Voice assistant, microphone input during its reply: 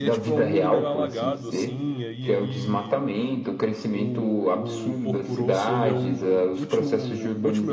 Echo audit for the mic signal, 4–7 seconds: both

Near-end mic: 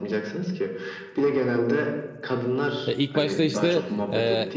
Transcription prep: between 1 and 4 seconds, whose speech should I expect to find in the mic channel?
both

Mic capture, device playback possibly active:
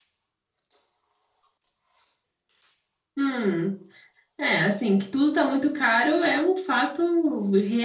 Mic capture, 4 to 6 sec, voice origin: user only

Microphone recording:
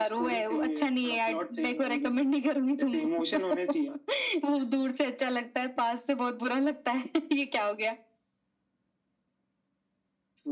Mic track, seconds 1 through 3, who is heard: echo only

